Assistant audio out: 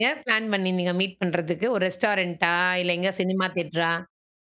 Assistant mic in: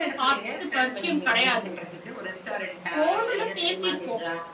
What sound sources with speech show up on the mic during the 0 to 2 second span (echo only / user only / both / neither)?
both